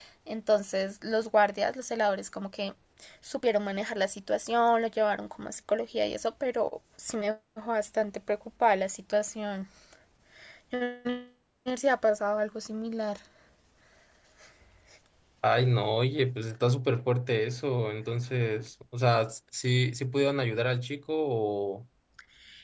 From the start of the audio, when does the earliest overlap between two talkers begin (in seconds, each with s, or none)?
none